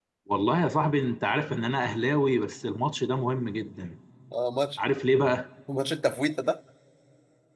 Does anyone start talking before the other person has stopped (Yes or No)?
No